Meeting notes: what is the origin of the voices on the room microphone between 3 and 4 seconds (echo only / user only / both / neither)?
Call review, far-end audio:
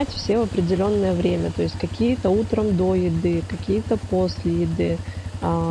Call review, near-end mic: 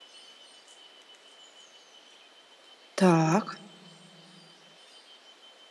user only